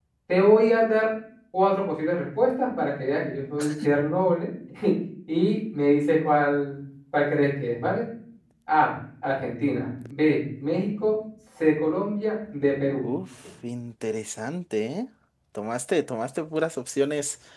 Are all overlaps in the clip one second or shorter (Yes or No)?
Yes